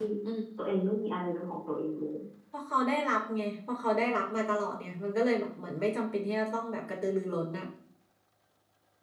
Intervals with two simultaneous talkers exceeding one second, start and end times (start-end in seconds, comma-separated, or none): none